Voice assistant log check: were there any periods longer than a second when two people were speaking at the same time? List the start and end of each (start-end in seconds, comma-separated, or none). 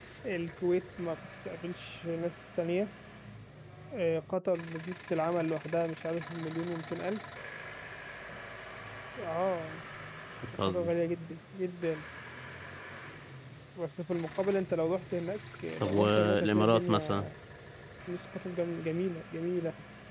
15.8-17.3